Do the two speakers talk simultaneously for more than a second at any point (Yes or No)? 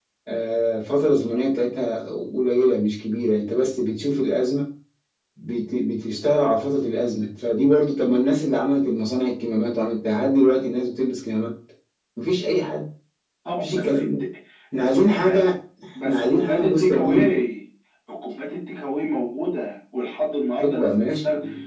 Yes